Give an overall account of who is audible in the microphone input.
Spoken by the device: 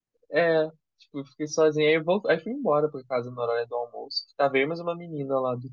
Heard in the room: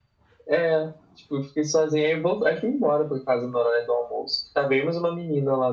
echo only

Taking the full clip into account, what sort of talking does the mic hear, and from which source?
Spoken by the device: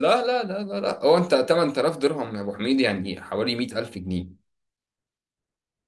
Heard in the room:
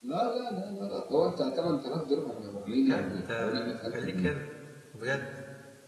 both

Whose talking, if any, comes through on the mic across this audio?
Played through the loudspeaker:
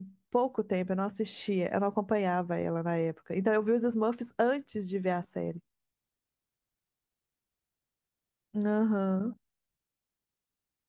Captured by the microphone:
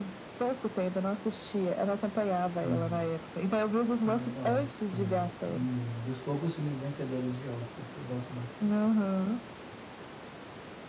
both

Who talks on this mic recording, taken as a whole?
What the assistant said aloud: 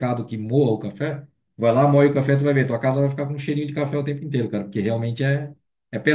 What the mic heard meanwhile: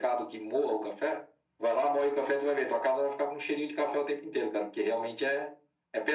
echo only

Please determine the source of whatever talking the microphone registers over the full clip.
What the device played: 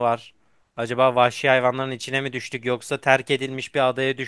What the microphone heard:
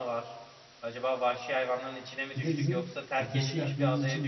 both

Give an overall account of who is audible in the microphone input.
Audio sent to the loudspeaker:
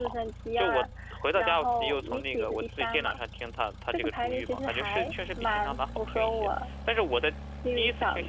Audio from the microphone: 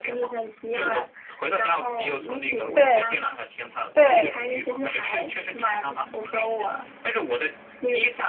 both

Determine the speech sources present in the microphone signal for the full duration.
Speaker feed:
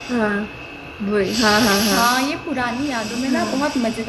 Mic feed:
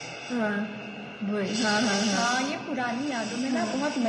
echo only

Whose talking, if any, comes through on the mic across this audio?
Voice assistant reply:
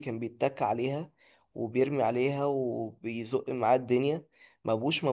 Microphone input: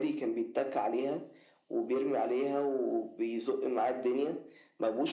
echo only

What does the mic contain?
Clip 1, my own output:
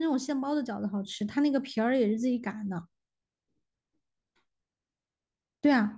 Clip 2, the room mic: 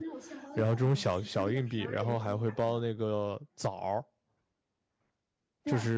both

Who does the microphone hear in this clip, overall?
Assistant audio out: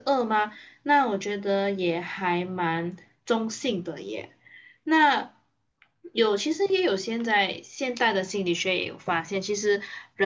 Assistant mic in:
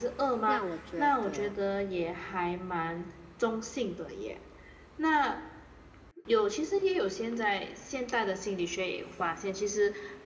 both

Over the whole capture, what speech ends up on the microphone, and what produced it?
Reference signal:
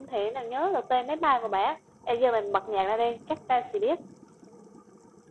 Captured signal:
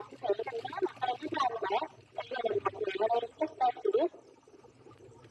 echo only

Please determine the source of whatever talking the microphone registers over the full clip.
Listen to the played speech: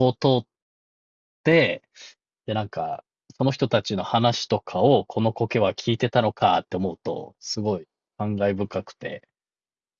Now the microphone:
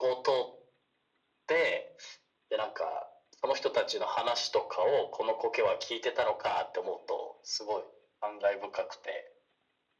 echo only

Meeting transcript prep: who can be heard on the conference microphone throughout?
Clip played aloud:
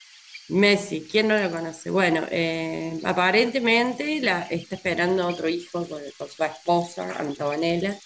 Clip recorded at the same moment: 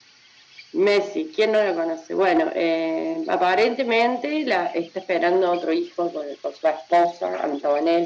echo only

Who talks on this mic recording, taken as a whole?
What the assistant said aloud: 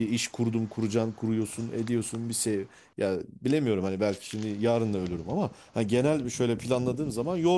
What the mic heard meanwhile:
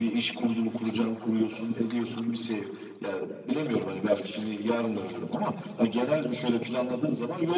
echo only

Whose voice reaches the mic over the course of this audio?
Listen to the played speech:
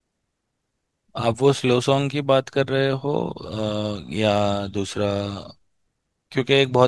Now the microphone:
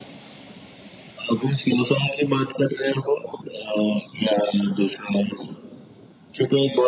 echo only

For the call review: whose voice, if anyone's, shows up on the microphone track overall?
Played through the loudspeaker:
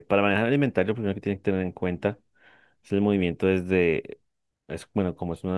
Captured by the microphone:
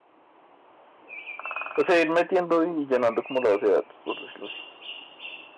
user only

